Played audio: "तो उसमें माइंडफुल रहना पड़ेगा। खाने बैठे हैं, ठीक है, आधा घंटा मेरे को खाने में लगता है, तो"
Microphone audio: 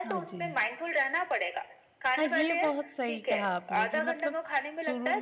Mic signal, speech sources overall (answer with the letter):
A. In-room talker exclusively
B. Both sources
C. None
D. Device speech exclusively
B